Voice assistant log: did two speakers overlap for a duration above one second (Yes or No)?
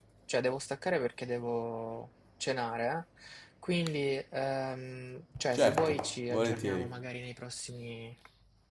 Yes